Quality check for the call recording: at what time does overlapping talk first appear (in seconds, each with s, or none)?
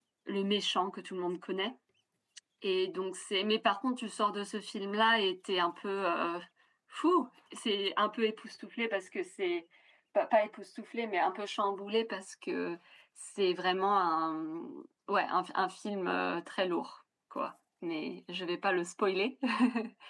none